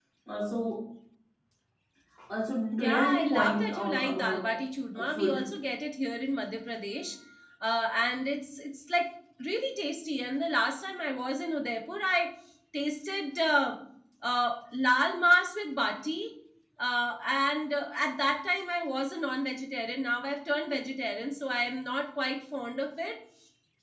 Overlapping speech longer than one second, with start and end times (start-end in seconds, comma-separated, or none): 2.8-4.6